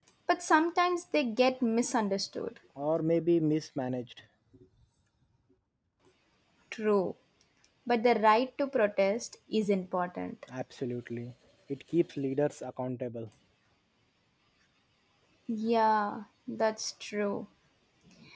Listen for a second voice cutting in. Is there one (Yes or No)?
No